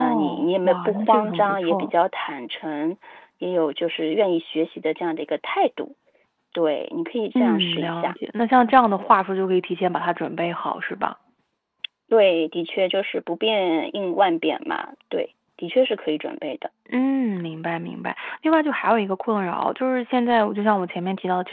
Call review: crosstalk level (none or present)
present